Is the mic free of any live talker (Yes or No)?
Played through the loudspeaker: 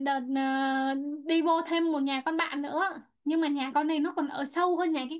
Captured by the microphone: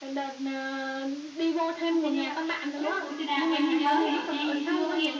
No